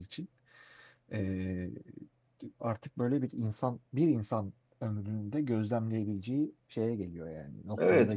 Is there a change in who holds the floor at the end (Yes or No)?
Yes